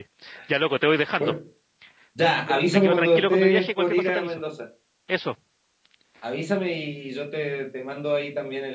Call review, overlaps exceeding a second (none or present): present